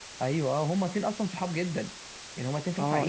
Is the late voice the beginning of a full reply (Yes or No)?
Yes